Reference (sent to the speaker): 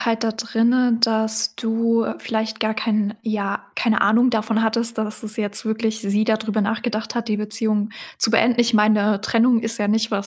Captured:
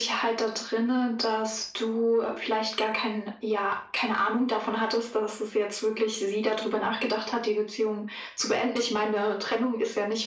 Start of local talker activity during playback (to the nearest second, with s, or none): none